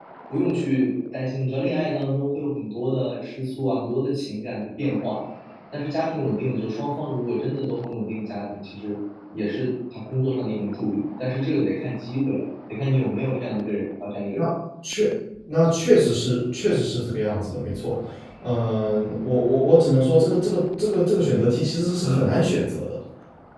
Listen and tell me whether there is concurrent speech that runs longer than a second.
No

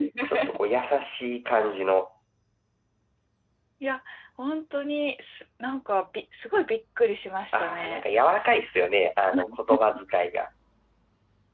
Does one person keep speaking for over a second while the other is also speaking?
No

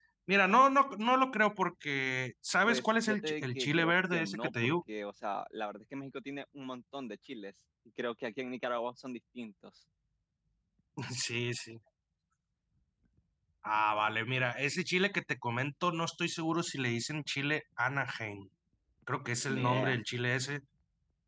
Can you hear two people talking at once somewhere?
Yes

